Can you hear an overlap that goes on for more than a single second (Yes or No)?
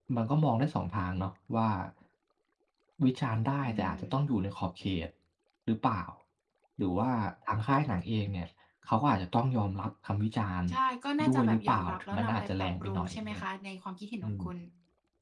Yes